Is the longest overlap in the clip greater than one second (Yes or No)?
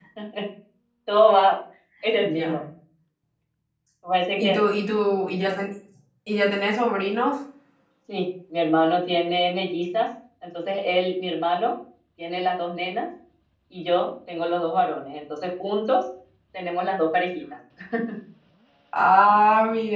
No